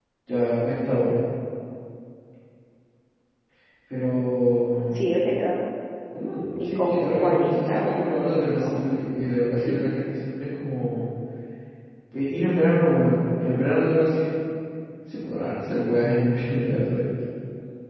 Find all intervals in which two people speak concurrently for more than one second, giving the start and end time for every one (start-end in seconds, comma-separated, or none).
6.6-8.2